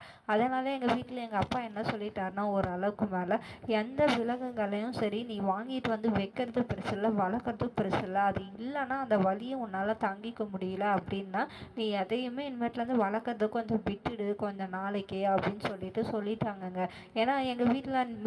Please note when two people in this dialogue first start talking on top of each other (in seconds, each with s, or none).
none